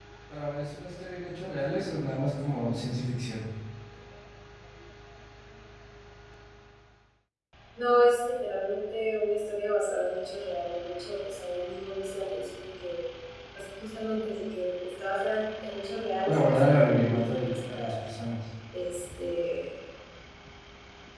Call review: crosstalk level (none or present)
present